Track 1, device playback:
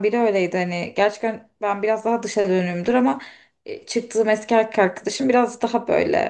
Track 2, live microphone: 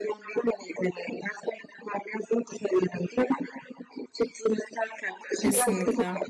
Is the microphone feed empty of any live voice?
No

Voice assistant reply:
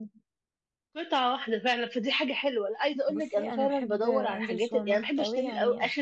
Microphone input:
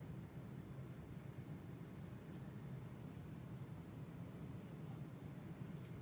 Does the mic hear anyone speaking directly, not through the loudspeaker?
No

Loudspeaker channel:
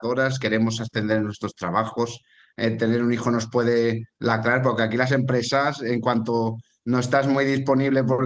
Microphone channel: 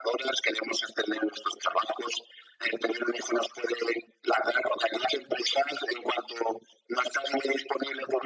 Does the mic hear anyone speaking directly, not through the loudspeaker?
No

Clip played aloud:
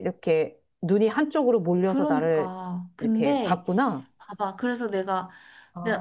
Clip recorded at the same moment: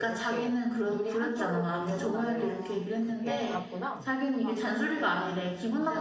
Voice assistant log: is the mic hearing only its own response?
No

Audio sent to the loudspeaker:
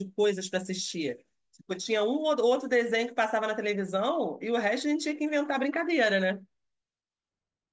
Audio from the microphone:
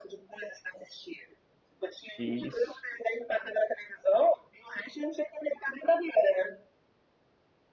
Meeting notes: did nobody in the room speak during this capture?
No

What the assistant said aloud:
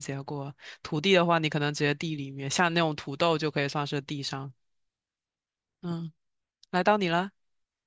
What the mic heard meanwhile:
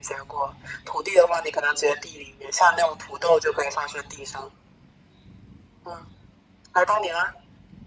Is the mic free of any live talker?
Yes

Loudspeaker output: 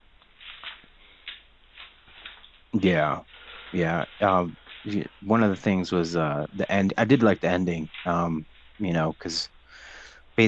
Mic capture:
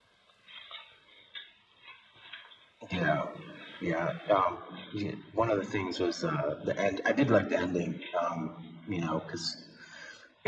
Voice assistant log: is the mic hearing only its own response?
Yes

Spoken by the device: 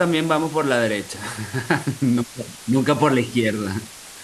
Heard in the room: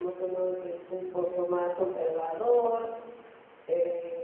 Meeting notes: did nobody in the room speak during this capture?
No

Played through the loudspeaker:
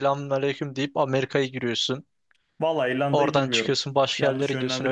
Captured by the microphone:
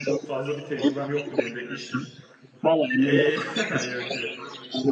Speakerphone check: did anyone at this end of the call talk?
Yes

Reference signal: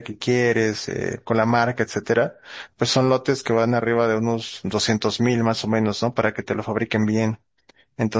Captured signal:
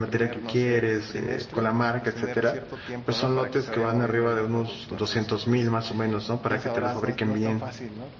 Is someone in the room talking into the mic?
Yes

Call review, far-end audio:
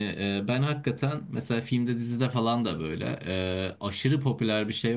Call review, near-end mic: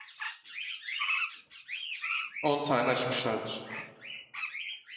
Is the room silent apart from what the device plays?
No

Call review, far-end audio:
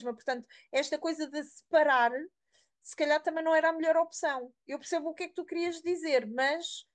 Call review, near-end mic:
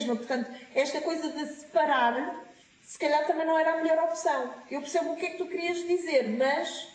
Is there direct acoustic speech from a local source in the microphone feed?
No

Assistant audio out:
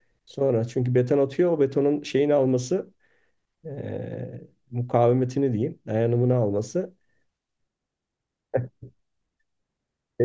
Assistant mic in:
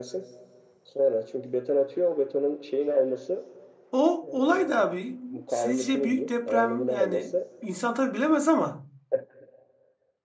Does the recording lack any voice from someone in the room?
No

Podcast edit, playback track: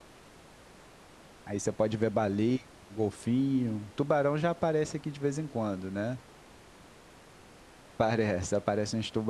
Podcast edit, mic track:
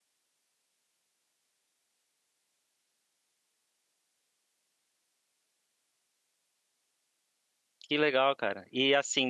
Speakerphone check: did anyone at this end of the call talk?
Yes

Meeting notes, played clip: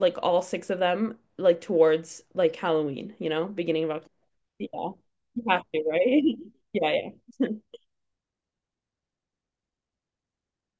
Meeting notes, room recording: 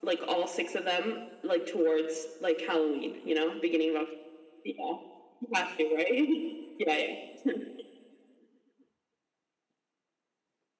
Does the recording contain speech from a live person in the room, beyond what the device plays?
No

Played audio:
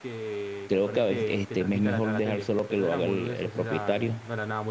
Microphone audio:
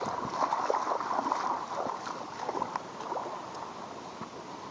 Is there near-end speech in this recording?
No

